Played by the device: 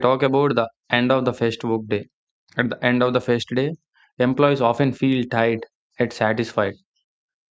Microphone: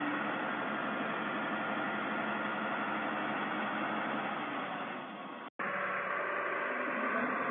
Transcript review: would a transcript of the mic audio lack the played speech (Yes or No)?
Yes